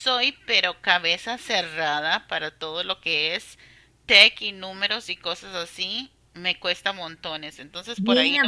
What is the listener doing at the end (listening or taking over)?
taking over